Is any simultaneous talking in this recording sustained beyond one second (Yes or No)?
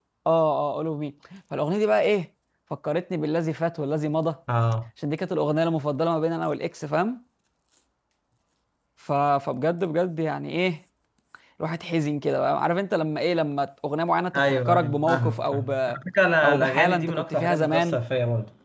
Yes